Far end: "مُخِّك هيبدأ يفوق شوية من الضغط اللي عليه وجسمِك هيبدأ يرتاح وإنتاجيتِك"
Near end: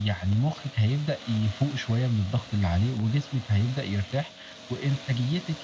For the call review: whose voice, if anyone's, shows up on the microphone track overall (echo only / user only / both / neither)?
echo only